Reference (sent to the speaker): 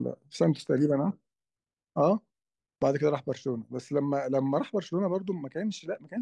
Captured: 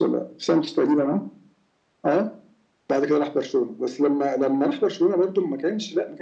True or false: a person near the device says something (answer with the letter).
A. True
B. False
B